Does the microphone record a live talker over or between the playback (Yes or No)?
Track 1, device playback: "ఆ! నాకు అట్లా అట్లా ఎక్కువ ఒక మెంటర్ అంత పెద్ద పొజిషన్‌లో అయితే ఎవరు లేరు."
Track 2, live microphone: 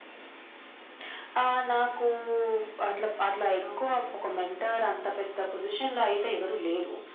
Yes